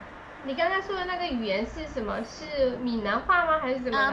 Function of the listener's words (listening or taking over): taking over